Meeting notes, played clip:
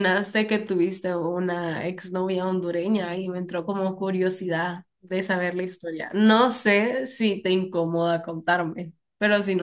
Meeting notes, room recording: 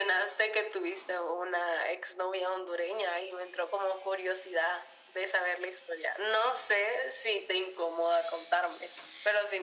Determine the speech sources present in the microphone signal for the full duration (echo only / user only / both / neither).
echo only